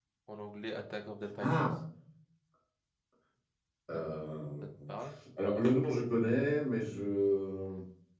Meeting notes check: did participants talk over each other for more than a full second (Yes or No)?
No